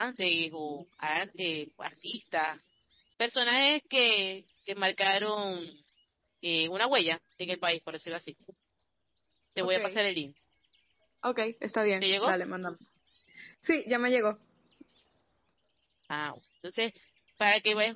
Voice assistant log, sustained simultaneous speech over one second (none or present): none